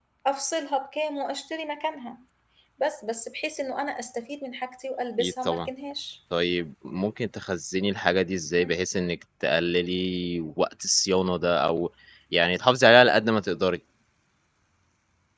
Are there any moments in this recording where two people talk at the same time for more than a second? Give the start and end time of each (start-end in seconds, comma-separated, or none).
none